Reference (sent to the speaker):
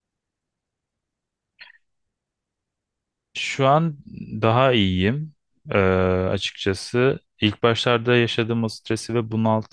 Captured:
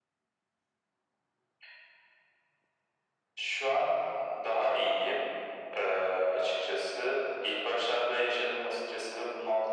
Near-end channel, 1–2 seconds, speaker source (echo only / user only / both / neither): neither